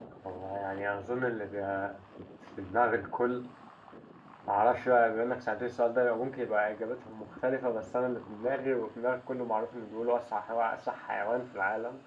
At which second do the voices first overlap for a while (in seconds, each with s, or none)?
none